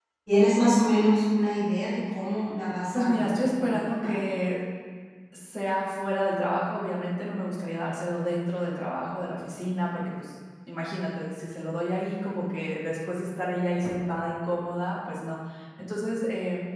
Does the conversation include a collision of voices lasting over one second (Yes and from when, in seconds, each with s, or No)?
Yes, from 2.9 s